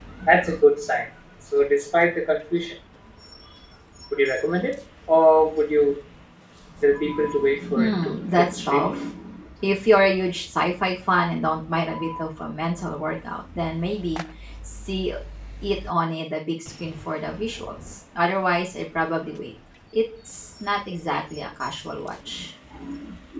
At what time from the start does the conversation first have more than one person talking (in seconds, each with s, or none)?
7.8 s